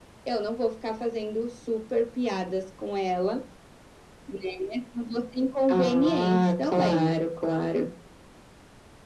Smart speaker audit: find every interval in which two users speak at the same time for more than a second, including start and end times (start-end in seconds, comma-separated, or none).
5.7-7.1